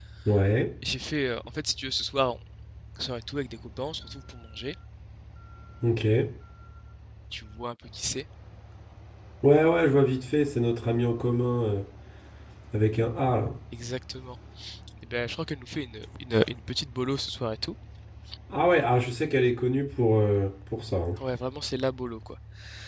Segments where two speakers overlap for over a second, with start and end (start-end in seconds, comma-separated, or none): none